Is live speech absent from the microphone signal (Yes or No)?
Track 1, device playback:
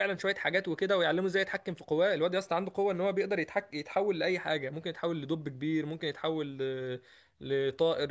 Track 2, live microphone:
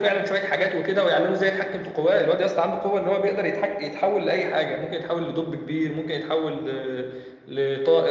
Yes